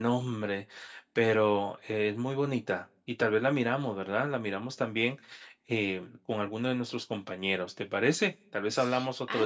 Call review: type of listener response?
taking over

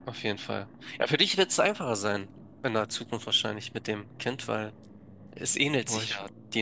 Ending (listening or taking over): listening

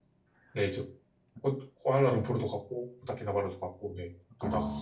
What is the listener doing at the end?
taking over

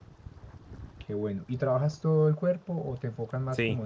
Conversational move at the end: taking over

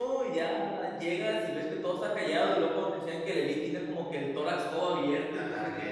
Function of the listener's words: taking over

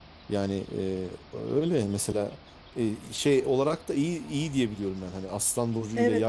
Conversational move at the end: taking over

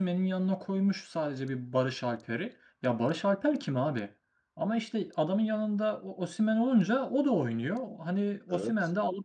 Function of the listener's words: listening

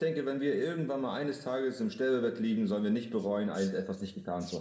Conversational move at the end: taking over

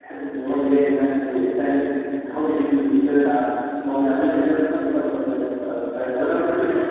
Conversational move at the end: listening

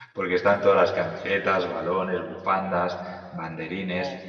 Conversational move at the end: listening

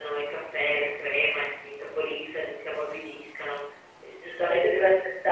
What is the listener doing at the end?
listening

